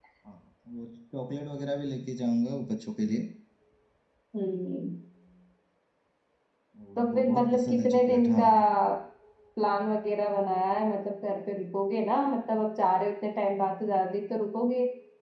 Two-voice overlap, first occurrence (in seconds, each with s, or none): 7.0 s